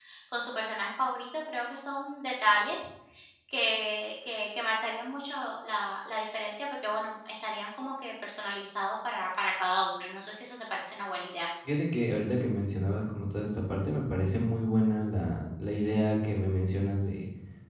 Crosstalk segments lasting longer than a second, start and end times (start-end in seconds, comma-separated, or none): none